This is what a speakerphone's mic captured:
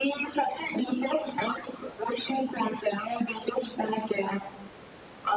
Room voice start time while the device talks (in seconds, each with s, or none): none